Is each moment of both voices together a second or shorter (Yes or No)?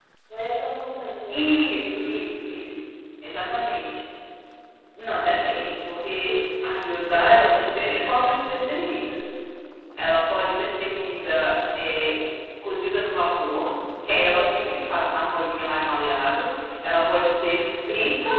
Yes